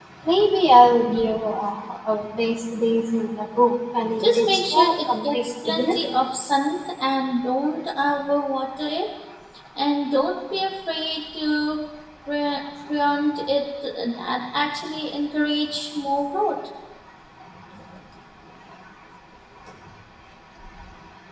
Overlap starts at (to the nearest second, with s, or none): 4 s